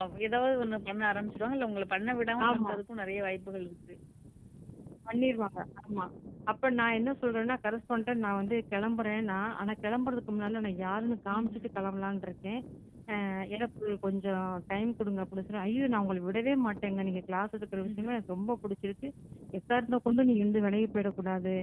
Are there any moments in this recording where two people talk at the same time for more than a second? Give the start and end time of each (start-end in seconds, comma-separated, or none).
none